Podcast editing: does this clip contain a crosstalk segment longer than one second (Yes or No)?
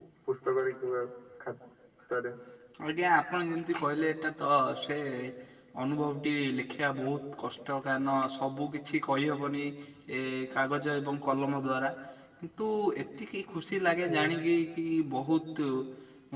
No